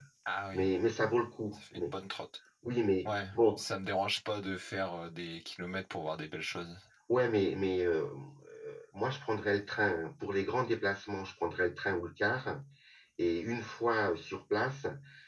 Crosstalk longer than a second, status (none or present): none